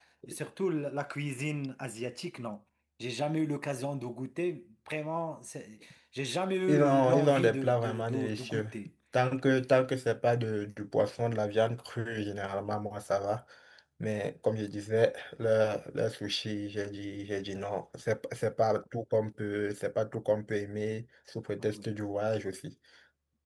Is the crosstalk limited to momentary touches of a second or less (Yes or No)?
No